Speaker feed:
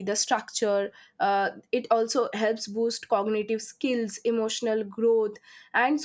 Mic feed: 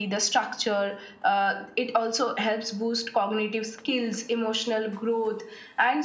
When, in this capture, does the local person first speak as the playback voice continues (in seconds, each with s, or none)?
none